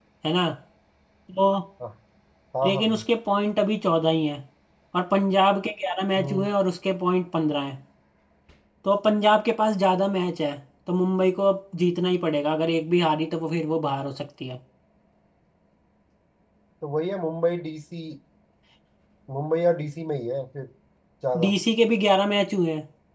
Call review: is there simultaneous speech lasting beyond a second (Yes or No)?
No